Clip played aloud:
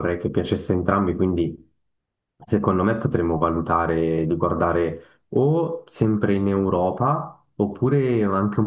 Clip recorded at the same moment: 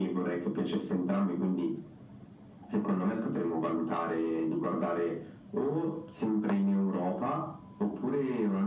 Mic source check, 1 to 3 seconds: echo only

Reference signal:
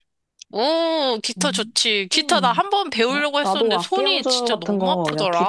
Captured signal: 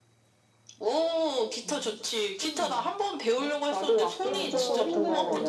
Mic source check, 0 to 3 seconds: echo only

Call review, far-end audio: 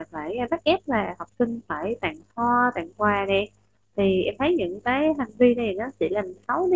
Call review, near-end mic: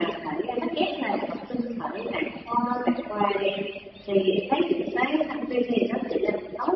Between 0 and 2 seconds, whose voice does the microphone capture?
echo only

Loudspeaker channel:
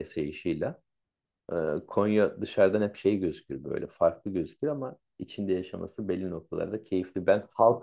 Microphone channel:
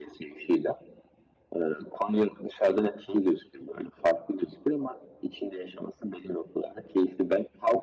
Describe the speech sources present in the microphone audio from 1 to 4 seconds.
echo only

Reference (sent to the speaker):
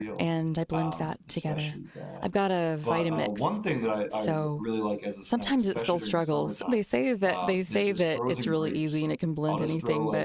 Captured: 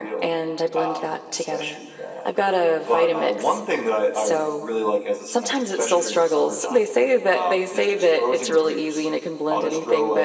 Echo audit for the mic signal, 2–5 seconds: echo only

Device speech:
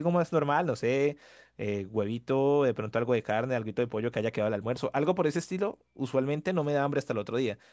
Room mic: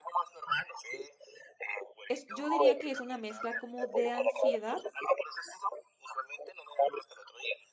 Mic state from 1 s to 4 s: both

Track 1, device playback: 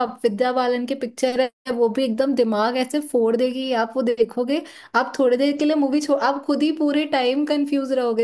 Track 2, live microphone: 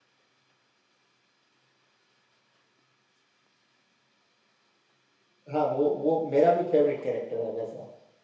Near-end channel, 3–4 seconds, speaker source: neither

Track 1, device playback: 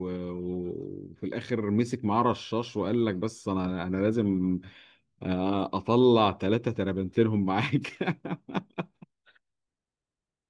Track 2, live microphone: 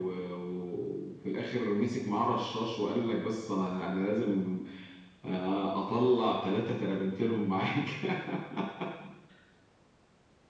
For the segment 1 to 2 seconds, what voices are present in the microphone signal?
echo only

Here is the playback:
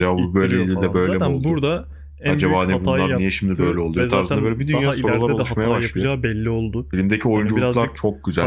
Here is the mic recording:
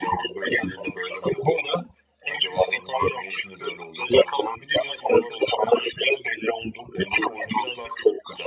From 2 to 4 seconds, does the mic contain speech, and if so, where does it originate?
echo only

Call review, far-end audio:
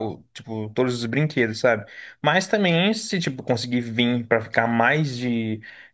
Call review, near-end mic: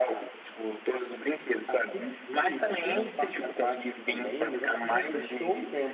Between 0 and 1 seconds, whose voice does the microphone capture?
echo only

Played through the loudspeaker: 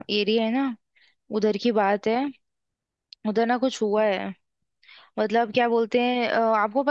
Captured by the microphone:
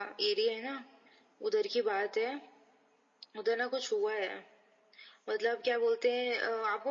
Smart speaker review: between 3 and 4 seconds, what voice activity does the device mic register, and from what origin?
echo only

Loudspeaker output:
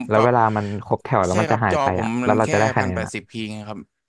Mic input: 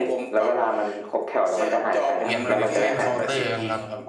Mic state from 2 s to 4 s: both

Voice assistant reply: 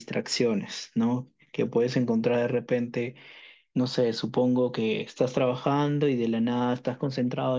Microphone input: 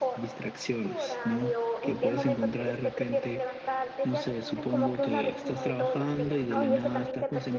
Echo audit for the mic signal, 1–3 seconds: both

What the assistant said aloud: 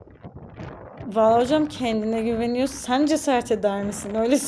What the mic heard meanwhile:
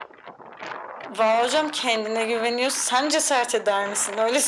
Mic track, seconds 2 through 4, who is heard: echo only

